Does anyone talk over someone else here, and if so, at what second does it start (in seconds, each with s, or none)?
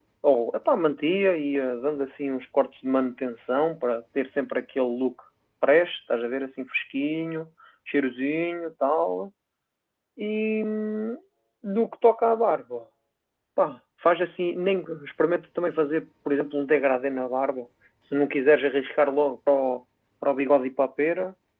none